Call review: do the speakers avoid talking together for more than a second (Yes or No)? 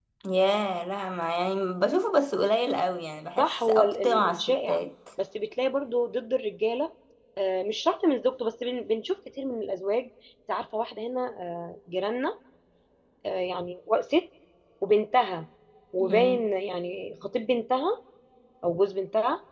No